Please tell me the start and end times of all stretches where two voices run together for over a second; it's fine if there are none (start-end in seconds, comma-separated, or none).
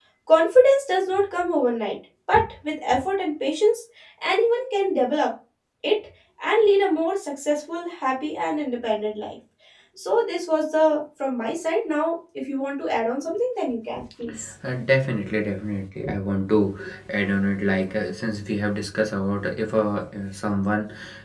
none